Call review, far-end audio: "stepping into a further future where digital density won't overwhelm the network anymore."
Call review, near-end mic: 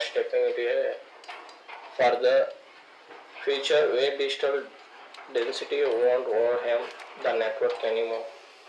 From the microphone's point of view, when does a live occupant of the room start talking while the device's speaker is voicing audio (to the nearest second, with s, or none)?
none